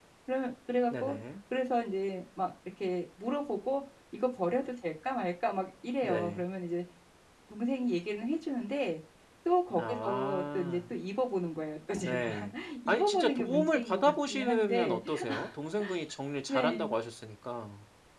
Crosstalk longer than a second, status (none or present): present